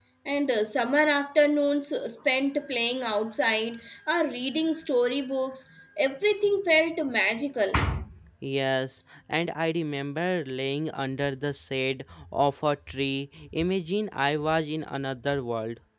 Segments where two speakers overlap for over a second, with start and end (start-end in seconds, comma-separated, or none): none